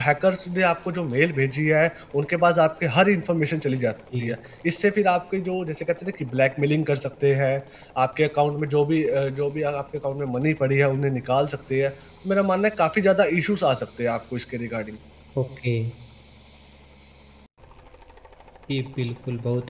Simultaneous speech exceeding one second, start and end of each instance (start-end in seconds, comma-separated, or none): none